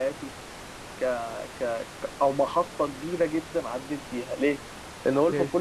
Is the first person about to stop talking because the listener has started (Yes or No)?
No